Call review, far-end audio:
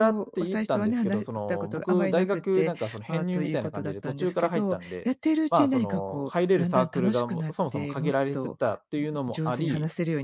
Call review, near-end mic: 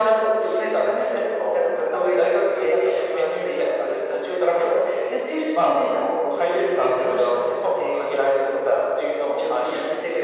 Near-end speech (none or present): none